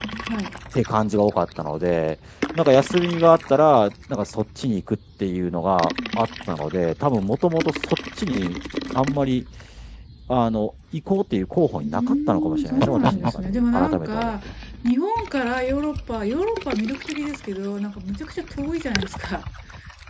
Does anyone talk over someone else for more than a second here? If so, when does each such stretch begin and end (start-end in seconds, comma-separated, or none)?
11.8-14.3